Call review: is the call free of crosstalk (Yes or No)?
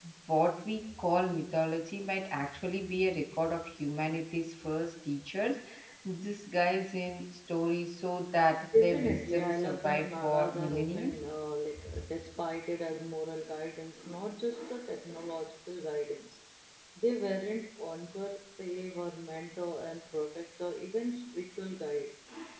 No